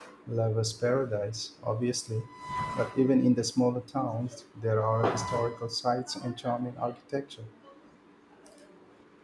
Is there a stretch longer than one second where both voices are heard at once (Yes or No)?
No